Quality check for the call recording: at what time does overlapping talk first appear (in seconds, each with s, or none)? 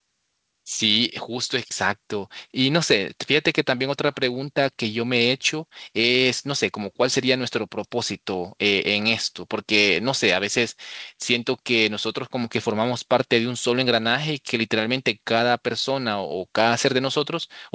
none